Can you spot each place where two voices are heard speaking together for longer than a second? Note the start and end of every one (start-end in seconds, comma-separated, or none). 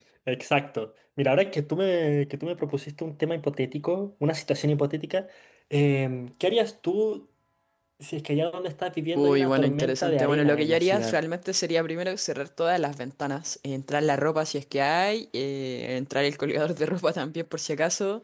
9.2-11.2